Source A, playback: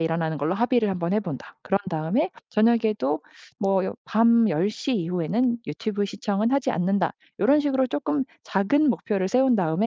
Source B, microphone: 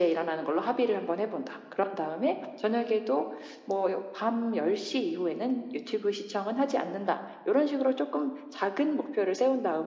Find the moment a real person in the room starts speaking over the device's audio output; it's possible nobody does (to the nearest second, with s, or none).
none